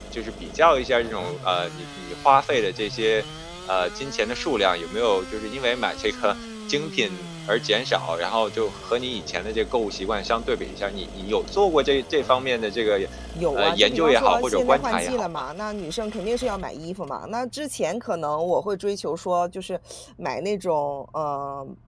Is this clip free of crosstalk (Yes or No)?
No